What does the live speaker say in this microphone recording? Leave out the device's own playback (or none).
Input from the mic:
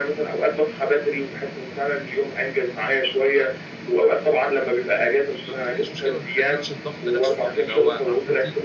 ما بتحلّش مشكلة، ما بتقلّلش الضغط نفْسه يعني، اللي هو عارفة أنتِ